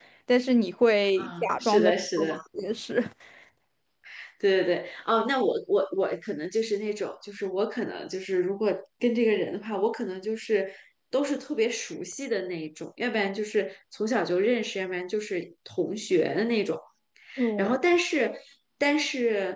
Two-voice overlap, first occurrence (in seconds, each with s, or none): 1.2 s